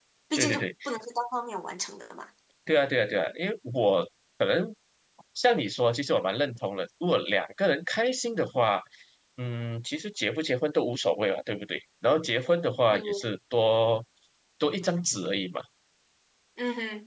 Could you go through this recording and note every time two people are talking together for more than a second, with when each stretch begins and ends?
none

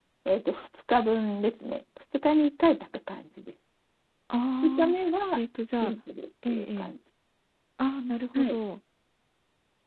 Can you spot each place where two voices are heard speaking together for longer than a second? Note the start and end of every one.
none

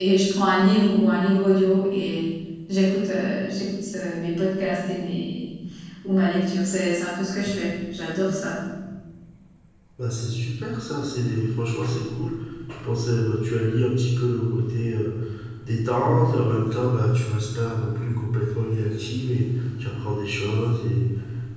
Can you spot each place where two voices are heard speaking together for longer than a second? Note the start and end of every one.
none

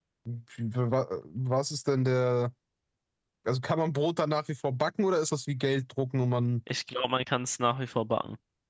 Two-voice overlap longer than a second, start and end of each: none

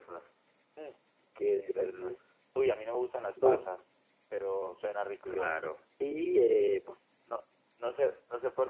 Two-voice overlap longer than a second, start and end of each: none

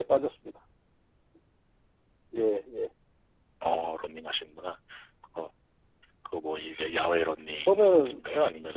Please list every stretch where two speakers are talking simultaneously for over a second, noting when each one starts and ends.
none

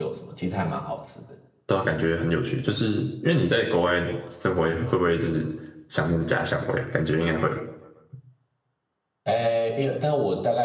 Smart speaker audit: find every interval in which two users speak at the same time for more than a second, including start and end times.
none

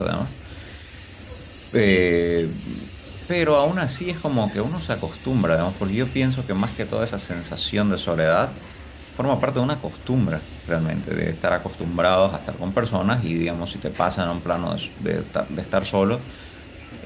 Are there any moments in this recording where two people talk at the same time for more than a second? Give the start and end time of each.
none

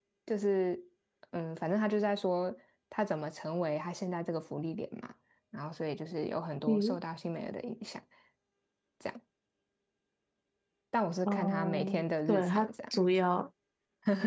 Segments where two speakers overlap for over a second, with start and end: 11.3-13.0

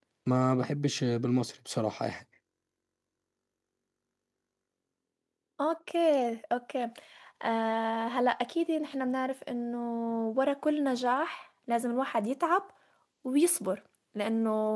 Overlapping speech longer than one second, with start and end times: none

